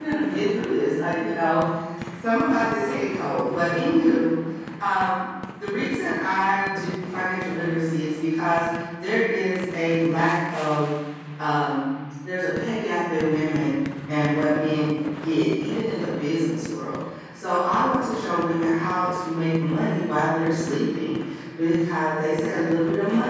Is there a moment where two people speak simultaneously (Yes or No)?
No